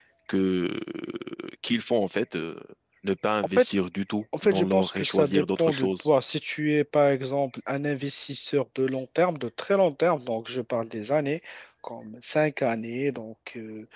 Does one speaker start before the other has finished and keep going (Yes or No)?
Yes